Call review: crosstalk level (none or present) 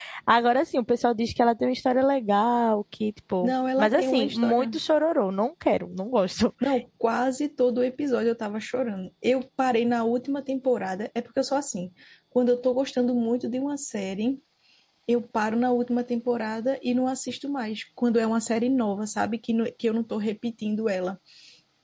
present